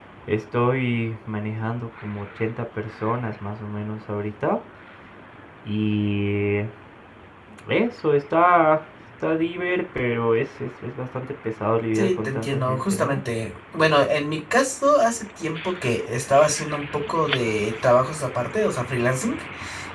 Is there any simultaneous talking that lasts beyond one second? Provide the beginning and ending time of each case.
11.9-13.2

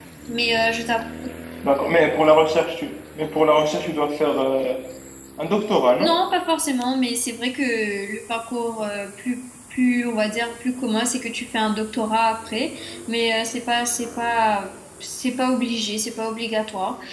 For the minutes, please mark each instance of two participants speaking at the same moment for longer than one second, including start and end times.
none

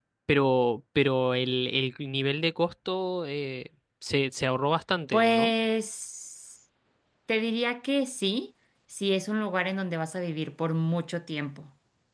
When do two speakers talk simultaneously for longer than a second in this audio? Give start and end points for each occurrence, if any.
none

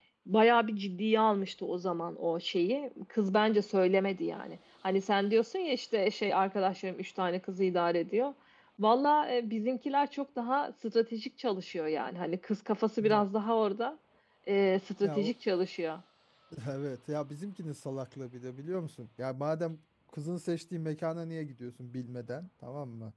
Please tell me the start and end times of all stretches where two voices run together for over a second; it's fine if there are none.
none

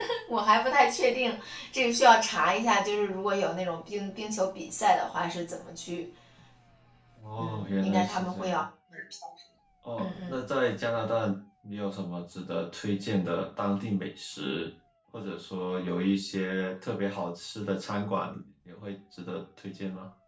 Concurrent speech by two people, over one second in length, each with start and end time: 7.4-8.6

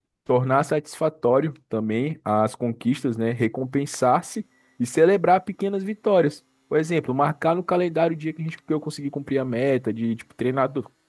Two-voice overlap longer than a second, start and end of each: none

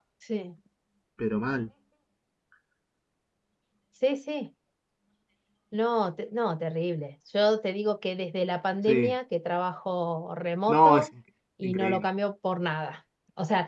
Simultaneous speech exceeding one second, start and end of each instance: none

